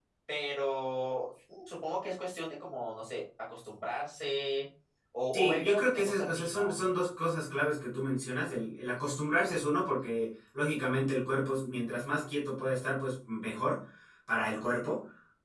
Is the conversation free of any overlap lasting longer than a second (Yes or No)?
No